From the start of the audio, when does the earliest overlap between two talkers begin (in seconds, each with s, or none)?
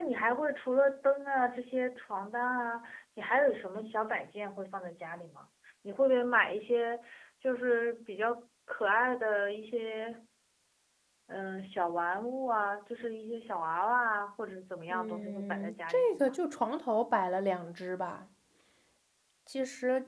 14.9 s